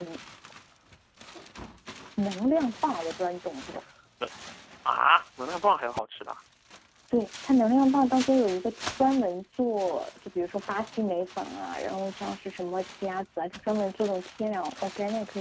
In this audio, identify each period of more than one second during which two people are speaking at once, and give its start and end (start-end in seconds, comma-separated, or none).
none